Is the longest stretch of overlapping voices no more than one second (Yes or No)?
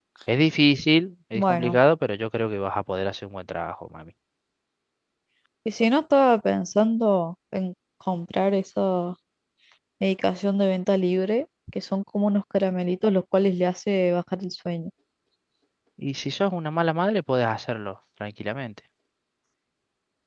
Yes